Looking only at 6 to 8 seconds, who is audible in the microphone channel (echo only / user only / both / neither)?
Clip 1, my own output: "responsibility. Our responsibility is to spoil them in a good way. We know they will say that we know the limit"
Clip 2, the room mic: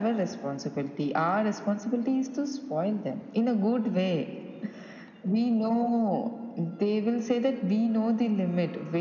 echo only